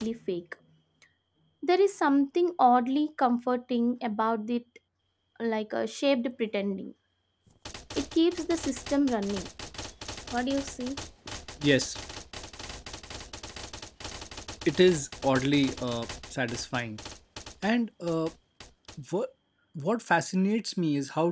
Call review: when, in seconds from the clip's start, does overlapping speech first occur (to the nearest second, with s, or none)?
none